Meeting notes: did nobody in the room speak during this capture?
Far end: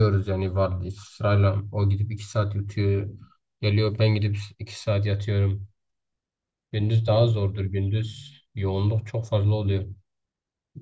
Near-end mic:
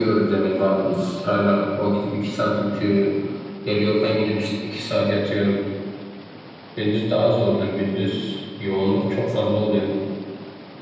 Yes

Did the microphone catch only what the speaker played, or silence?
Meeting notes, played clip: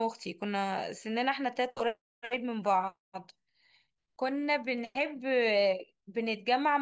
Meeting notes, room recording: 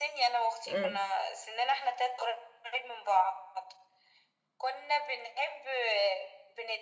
No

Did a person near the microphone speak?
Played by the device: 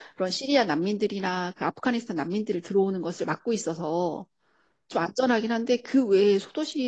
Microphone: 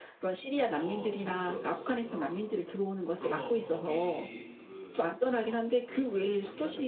Yes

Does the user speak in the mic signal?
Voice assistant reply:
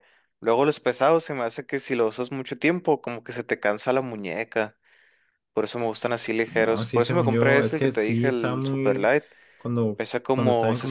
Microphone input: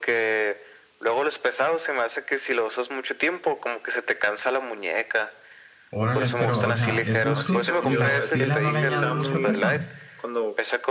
Yes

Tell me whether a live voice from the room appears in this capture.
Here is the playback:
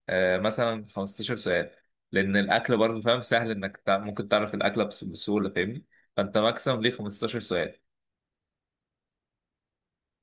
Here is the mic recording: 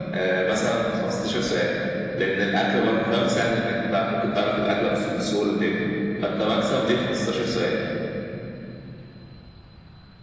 No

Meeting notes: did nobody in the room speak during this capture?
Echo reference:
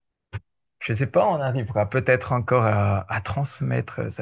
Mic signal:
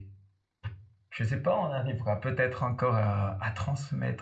Yes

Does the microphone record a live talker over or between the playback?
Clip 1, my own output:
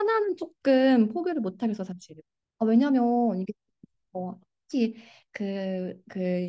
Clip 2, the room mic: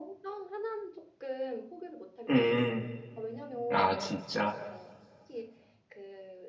Yes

